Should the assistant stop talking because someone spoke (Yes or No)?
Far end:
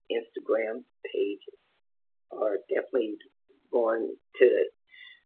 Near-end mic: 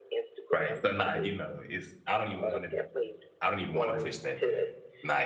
Yes